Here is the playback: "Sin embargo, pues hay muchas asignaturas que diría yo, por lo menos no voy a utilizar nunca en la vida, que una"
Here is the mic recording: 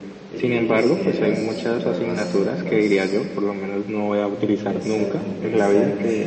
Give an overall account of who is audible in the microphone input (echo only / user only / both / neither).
both